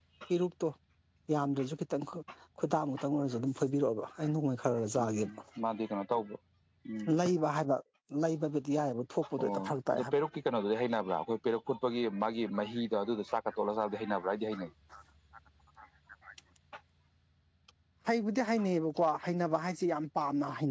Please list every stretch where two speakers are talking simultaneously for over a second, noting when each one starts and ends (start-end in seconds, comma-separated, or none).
none